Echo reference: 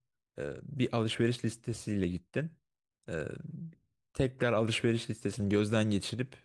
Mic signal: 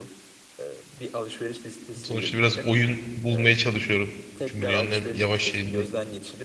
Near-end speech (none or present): present